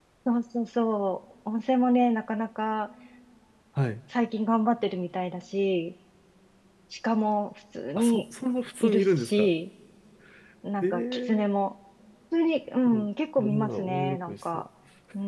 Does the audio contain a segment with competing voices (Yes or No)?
Yes